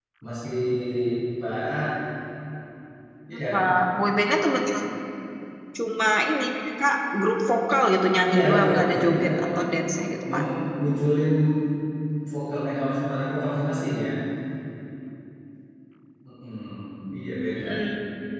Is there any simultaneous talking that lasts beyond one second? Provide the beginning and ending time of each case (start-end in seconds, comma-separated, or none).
8.3-9.6